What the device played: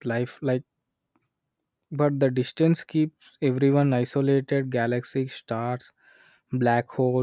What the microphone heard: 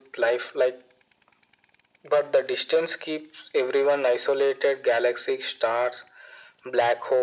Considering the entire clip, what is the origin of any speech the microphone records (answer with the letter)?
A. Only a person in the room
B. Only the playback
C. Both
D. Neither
B